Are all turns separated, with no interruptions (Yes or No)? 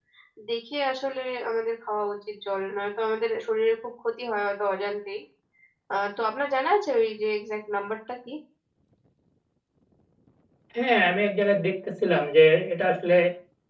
Yes